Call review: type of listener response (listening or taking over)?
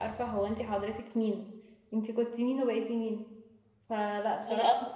listening